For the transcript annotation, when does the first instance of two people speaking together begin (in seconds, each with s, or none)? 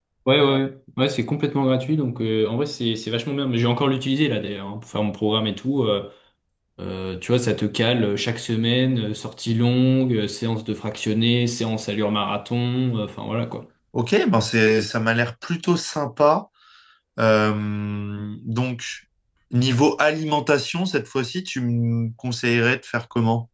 none